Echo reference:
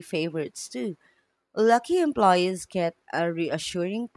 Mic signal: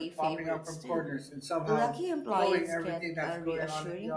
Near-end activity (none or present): present